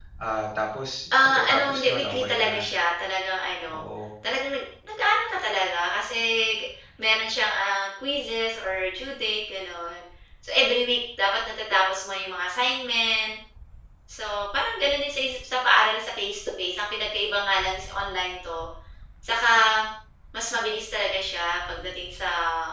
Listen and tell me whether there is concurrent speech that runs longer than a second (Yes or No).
Yes